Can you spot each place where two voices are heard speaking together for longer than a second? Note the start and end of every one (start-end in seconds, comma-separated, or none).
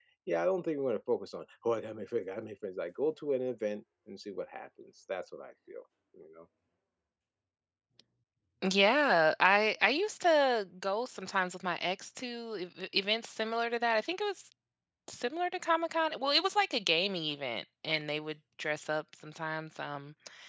none